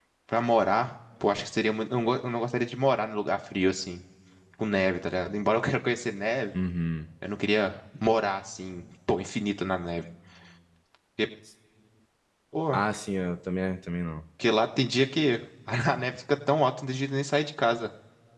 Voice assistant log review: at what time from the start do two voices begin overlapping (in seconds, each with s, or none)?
none